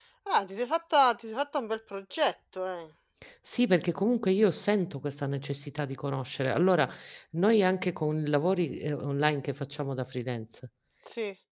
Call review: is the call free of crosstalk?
Yes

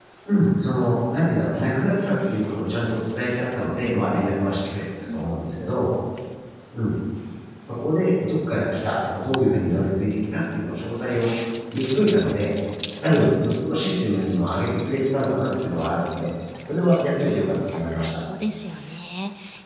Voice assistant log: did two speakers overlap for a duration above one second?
No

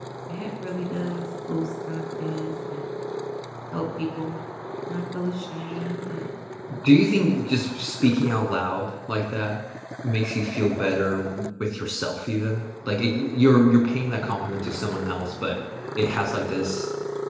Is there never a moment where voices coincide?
Yes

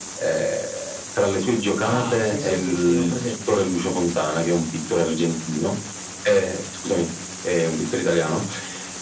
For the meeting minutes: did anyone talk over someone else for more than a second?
Yes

